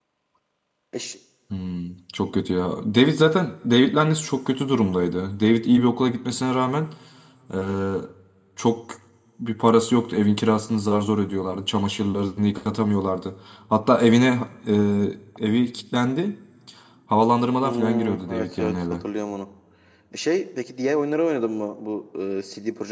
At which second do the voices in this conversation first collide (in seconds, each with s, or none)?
17.6 s